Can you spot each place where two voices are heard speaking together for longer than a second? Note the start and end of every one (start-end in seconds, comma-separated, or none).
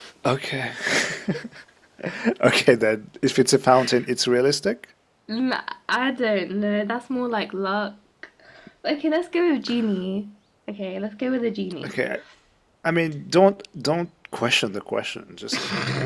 none